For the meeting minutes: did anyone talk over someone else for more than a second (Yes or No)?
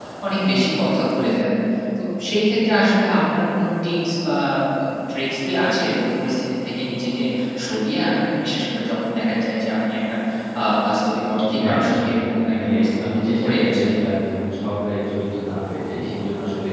Yes